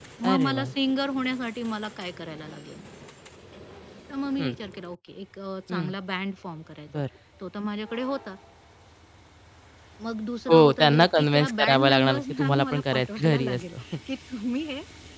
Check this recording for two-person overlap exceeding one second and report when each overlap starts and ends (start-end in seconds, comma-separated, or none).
10.5-13.8